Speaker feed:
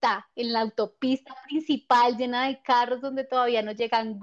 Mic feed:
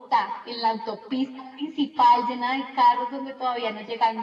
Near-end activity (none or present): none